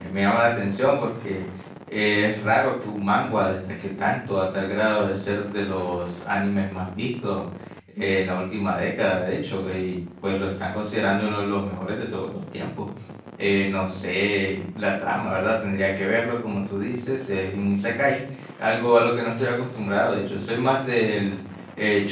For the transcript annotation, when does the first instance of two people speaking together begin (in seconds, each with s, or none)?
none